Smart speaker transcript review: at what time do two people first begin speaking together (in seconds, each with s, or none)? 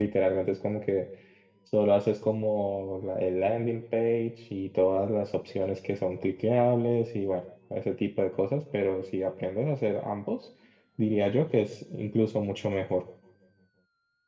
none